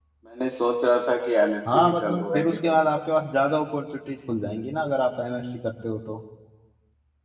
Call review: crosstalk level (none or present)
present